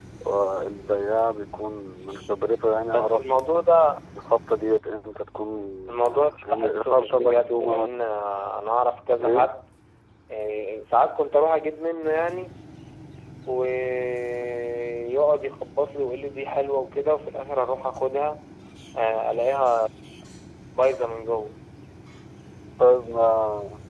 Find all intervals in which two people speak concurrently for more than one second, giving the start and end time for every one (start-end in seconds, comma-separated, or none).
6.0-7.9